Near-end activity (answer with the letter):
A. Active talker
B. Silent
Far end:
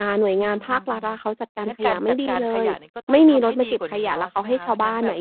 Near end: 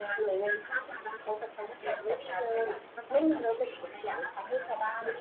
B